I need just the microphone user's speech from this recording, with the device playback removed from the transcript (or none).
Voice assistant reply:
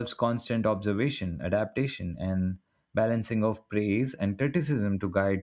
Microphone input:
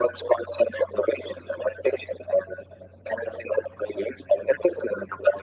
none